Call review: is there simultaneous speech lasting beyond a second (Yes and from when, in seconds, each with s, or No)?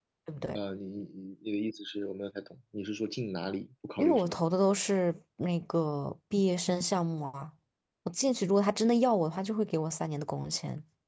No